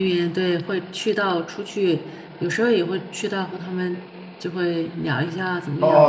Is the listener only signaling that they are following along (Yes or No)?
No